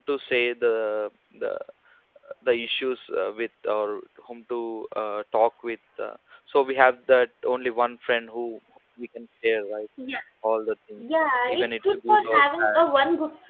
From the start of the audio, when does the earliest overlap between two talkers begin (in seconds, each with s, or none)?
11.5 s